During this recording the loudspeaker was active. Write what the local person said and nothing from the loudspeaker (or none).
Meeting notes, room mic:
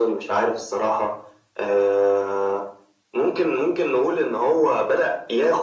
none